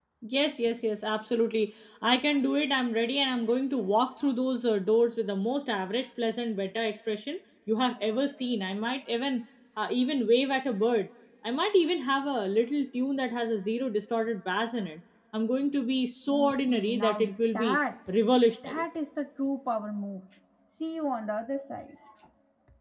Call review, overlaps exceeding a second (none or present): present